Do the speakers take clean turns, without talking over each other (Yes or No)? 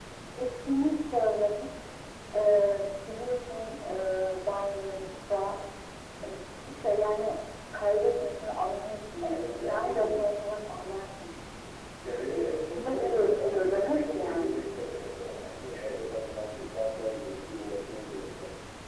No